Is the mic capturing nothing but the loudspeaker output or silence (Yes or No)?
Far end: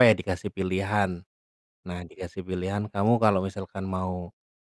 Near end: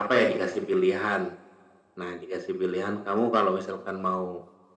Yes